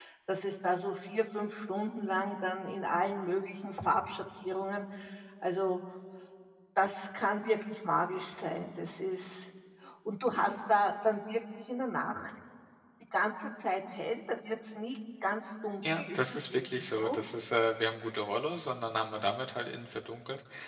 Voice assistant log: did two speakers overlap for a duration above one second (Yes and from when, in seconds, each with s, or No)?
Yes, from 15.8 s